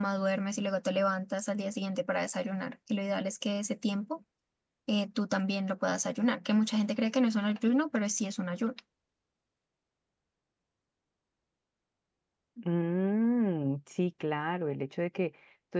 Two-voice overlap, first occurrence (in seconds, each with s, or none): none